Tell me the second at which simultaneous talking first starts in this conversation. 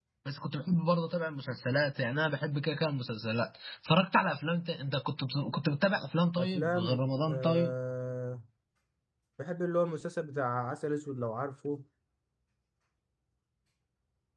6 s

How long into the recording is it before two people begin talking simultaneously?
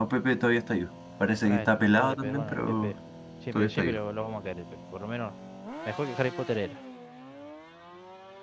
1 s

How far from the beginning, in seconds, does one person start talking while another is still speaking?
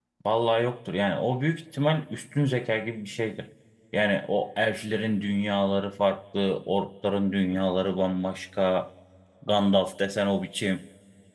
none

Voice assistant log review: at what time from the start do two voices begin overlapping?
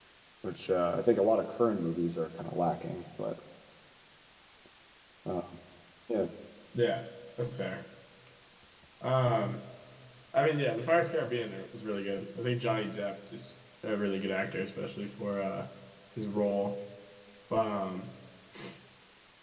none

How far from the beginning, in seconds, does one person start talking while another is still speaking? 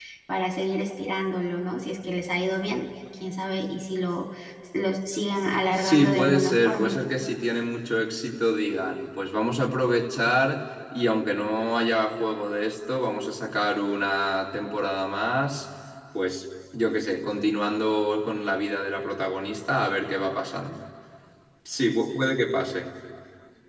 6 s

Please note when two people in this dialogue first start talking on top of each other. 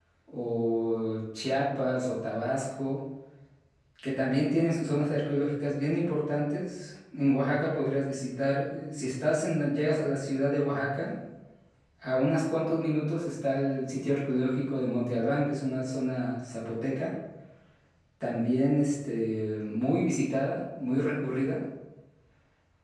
none

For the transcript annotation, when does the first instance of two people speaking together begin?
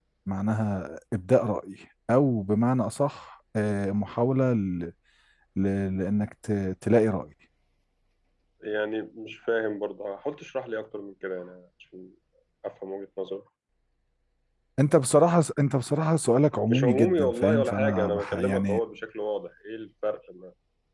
17 s

